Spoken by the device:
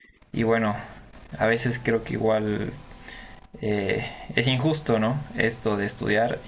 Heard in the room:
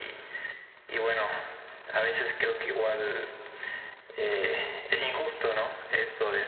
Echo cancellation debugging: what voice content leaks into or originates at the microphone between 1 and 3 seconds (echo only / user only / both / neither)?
echo only